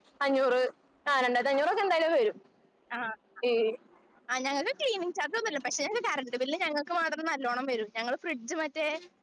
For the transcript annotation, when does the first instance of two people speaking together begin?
none

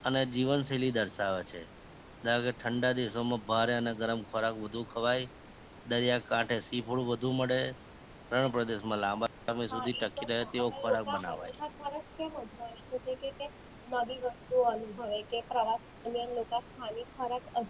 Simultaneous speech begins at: 10 s

